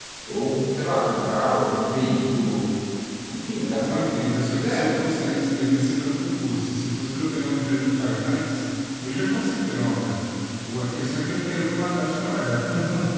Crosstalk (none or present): present